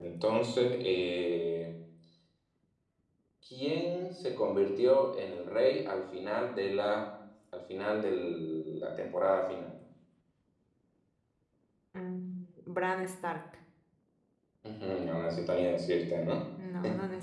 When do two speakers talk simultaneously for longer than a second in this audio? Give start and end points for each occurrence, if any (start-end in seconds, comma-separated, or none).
none